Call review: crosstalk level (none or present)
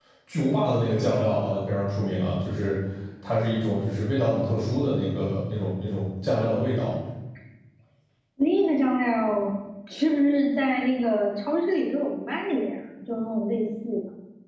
none